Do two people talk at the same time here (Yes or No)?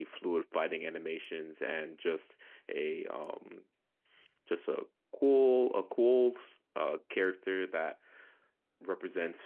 No